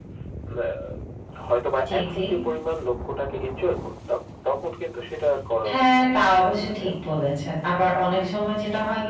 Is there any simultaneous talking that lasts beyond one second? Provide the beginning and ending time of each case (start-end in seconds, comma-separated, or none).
5.7-6.9